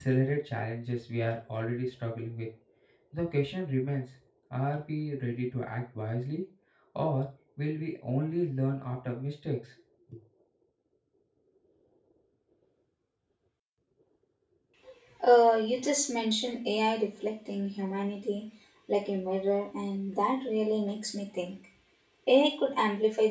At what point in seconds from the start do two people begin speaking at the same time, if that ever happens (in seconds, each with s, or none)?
none